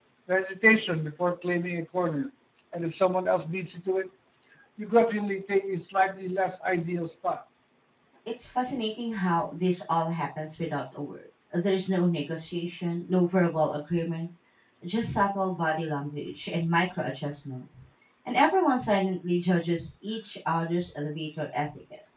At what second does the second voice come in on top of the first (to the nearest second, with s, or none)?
none